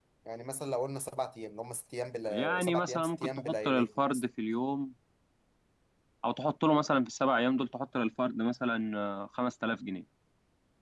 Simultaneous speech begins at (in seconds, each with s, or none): 2.3 s